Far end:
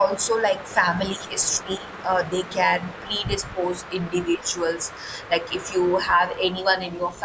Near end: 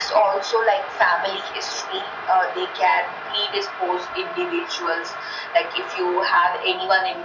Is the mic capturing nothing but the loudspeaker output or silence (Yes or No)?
Yes